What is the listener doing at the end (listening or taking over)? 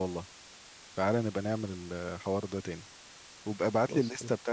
listening